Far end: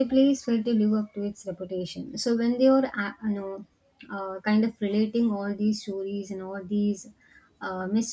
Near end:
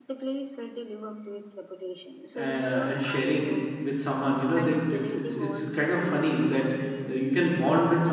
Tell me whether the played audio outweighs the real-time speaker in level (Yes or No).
No